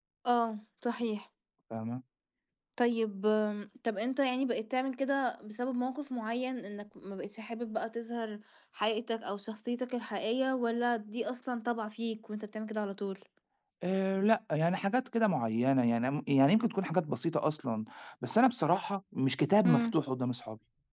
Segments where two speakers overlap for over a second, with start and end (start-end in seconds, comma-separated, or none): none